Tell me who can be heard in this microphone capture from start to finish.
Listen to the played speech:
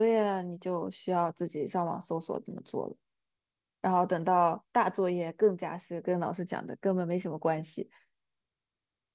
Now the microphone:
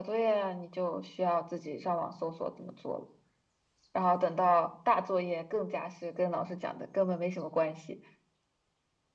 echo only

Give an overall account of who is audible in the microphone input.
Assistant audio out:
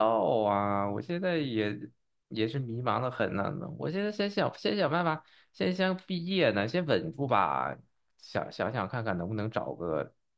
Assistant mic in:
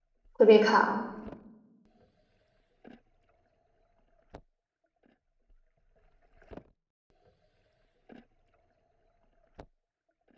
user only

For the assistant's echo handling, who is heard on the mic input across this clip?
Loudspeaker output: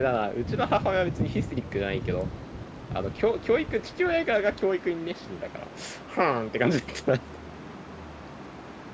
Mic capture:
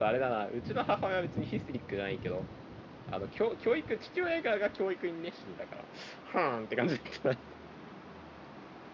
echo only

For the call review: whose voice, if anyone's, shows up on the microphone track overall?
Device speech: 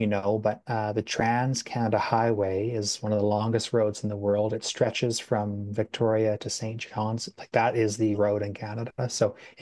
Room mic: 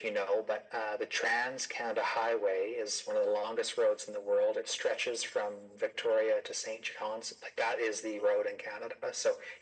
echo only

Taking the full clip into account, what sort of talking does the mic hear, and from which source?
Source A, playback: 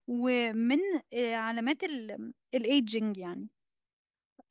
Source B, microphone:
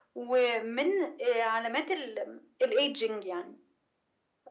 echo only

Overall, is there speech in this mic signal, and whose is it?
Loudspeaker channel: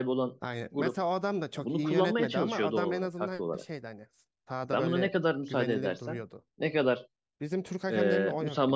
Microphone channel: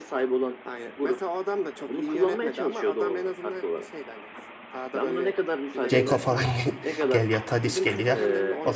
both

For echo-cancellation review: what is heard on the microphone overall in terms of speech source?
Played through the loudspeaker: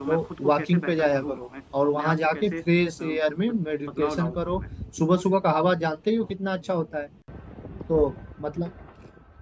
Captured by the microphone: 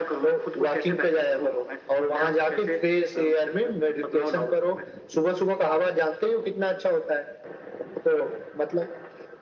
echo only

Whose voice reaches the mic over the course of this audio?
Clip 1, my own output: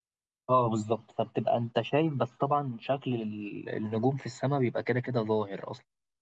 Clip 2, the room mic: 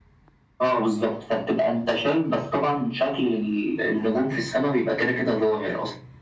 echo only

